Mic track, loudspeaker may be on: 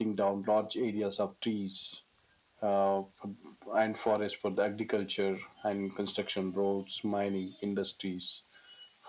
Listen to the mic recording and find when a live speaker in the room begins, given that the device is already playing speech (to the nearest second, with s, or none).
none